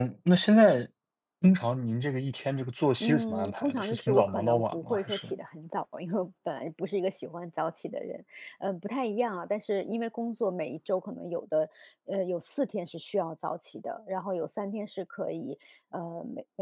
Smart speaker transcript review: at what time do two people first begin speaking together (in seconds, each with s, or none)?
3.0 s